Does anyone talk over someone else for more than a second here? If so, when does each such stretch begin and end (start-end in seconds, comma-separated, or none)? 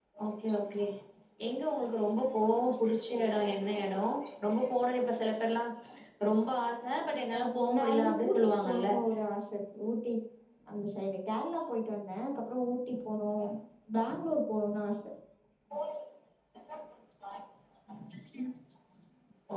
7.4-8.9